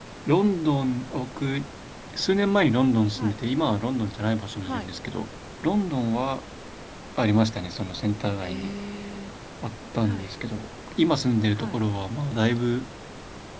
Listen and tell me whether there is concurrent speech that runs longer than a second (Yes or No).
No